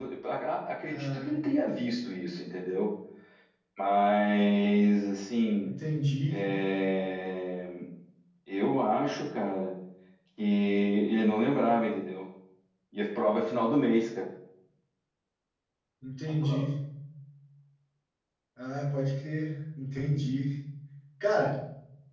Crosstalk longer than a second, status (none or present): none